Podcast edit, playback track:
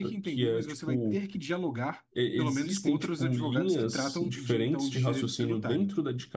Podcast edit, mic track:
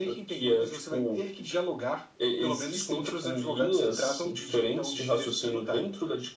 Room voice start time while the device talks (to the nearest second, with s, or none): none